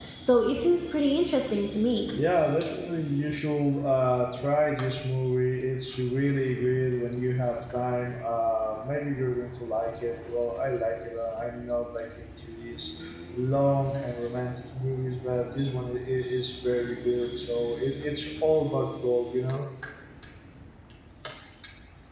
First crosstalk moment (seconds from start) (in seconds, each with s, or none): none